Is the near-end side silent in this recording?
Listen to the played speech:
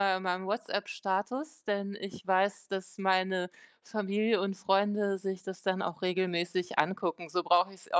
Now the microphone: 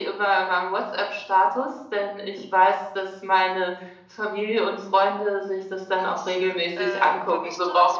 No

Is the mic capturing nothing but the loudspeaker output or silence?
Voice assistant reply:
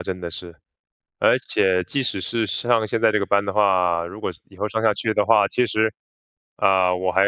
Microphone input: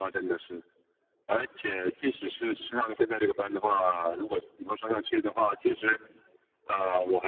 Yes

